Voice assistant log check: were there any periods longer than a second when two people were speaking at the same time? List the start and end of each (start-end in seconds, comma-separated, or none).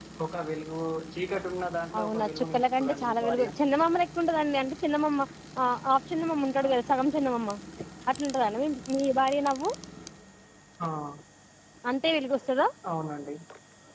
2.0-3.5